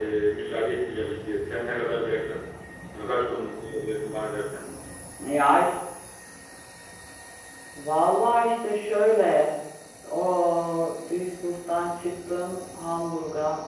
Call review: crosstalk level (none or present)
none